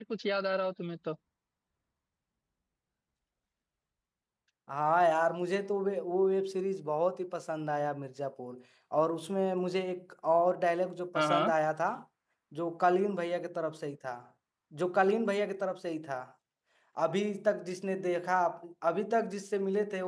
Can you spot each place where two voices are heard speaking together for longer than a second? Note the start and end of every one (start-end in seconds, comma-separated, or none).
none